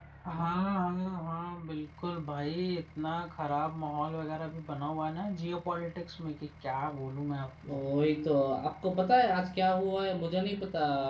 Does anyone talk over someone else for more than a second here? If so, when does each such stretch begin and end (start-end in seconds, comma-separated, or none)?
none